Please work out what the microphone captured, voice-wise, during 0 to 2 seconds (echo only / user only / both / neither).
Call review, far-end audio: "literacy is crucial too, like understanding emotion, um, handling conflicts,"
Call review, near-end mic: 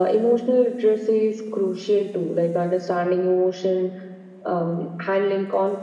echo only